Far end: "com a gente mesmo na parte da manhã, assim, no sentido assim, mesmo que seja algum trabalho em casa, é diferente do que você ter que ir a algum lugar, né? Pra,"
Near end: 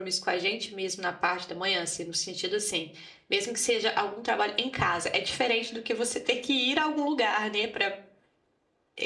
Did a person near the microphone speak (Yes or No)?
No